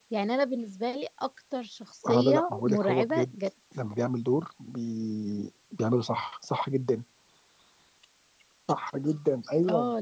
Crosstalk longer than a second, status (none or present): present